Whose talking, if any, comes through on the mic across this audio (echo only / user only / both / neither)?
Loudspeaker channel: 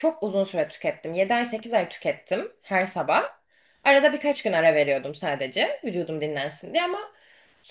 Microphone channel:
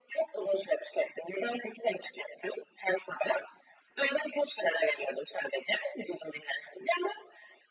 echo only